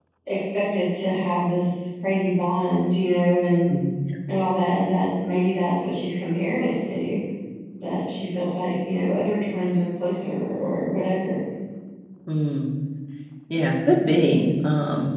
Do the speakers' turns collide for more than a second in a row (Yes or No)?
No